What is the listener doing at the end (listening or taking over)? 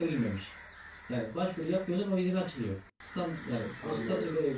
listening